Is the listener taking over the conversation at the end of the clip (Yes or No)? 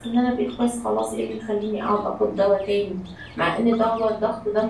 No